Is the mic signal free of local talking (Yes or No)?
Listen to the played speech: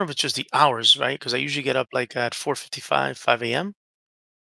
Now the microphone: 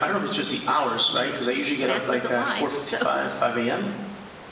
No